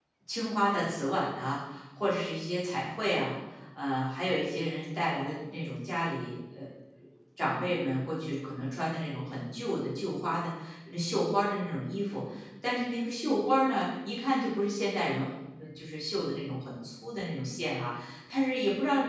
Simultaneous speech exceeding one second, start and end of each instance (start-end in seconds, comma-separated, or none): none